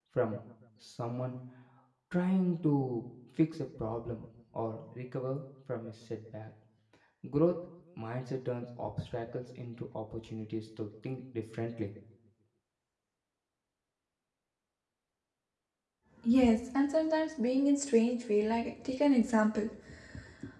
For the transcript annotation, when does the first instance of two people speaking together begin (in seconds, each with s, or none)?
none